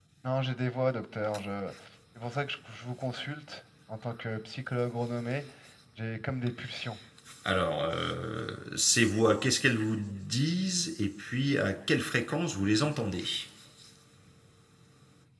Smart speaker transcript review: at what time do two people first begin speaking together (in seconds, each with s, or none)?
none